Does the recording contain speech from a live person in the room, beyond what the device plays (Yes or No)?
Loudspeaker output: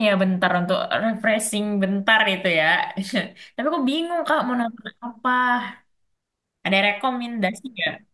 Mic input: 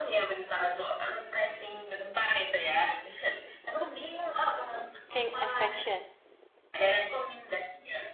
Yes